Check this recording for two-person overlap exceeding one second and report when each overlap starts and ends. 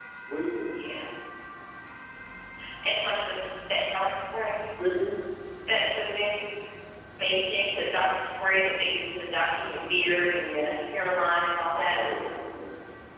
none

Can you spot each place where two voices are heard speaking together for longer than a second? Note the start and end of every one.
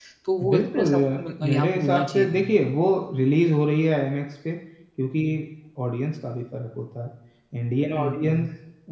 0.5-2.6

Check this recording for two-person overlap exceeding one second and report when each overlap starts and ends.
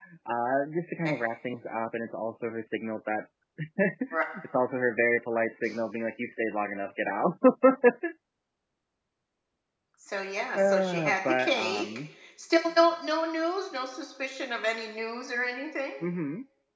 10.6-11.9

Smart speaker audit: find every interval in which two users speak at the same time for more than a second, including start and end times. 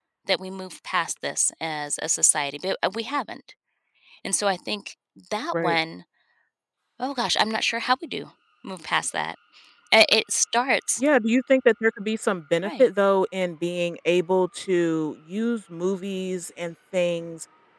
none

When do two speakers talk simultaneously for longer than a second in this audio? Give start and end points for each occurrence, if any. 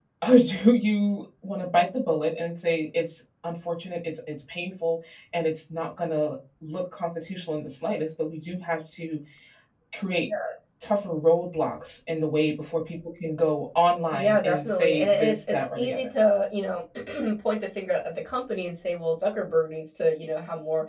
14.1-16.1

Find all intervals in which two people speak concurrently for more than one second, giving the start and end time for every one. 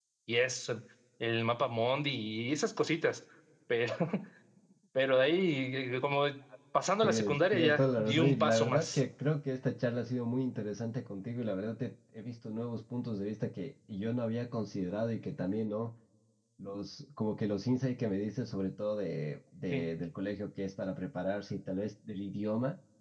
7.0-9.0

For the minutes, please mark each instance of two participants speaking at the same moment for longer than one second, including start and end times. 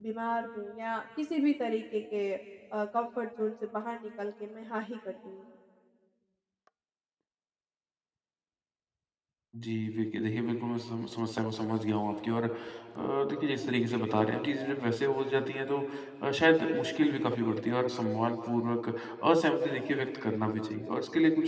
none

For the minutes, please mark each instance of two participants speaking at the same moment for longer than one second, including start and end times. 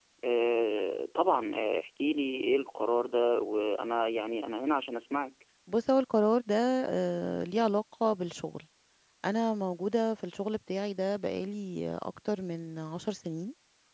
none

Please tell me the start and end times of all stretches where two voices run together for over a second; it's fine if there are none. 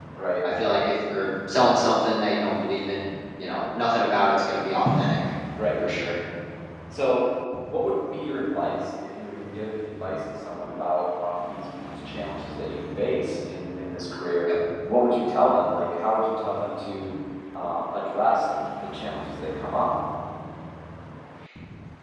none

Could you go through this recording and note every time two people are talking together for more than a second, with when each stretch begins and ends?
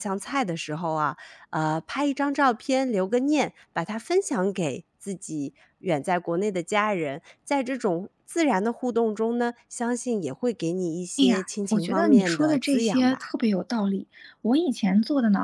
11.7-13.2

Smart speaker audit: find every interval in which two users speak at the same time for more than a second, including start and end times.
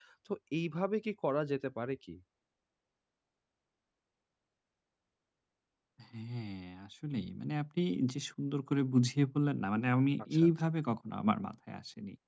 none

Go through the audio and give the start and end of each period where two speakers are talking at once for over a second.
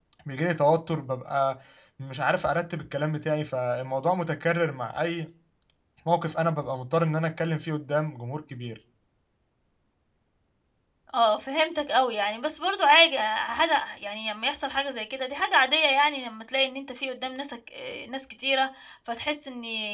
none

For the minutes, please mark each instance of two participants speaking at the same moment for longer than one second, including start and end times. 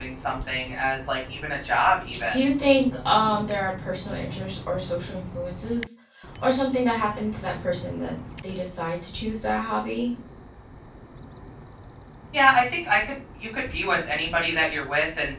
none

